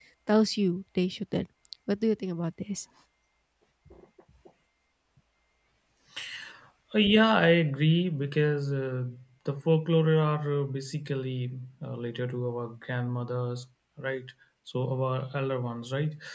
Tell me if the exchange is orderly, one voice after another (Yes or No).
Yes